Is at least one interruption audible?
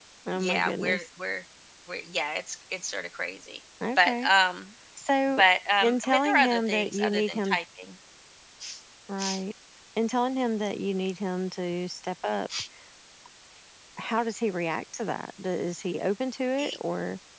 Yes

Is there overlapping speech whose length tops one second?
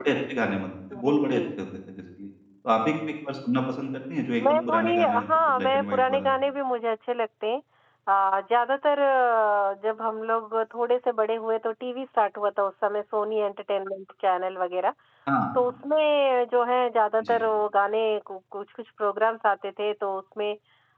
Yes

